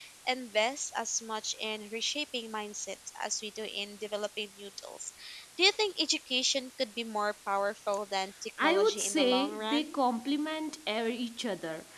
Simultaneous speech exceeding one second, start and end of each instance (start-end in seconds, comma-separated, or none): 8.6-9.9